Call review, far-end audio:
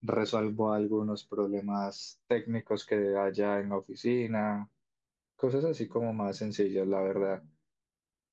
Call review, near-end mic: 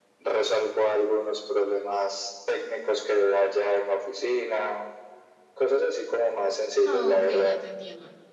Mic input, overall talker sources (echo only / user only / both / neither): both